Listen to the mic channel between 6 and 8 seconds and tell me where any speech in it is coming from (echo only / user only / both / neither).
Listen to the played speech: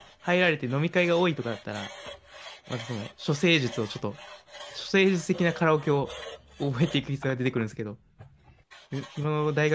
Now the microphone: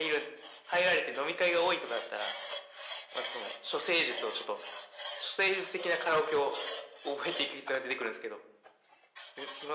echo only